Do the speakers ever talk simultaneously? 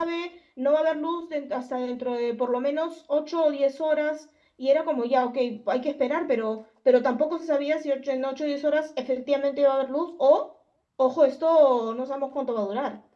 No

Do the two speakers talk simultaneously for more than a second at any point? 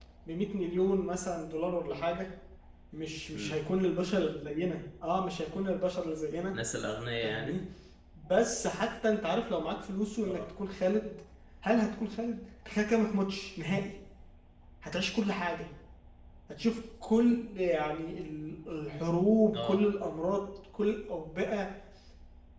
No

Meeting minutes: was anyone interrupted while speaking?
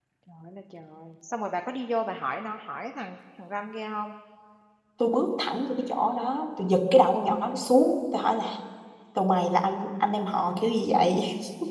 No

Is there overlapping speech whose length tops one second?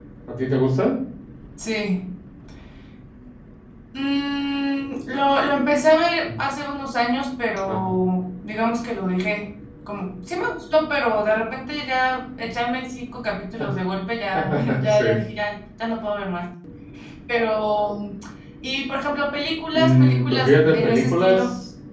Yes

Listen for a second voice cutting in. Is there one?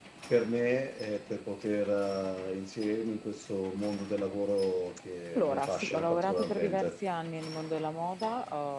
Yes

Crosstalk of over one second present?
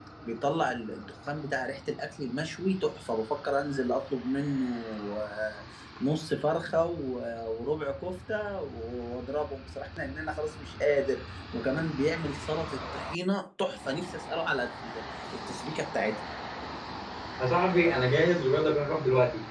No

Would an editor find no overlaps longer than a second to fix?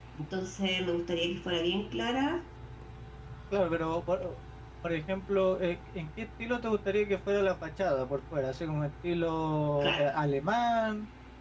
Yes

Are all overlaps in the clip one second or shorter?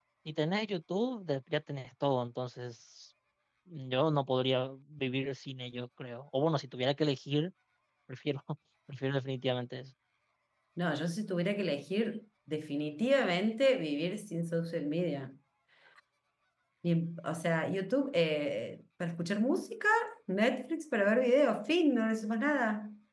Yes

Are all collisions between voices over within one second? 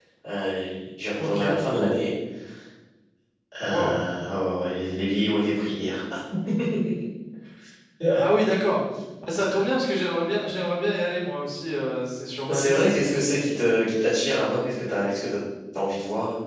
Yes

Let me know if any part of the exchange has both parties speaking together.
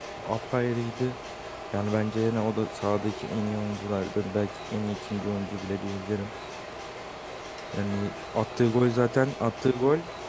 No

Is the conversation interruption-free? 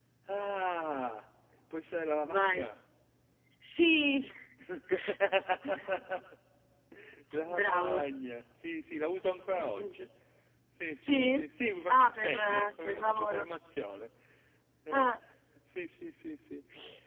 No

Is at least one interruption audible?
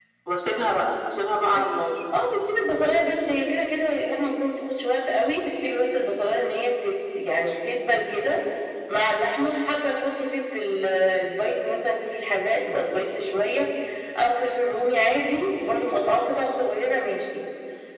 No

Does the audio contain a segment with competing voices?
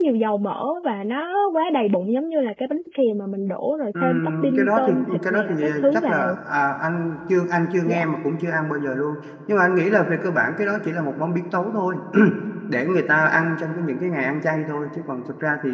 Yes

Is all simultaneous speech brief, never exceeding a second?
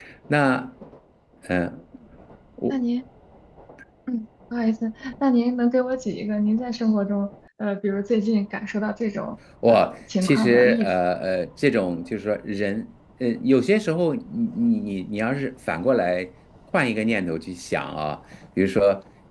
No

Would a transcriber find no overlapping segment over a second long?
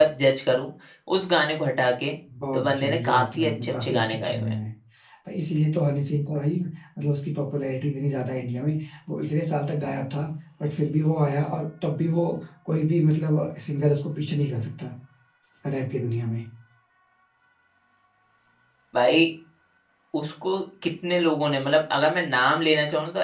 No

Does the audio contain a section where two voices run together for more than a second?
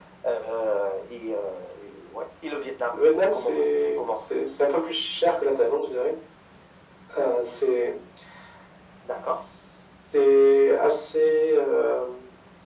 Yes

